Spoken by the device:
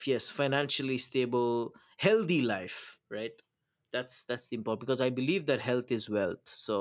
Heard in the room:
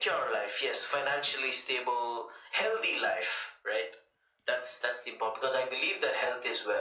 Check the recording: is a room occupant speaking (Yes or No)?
No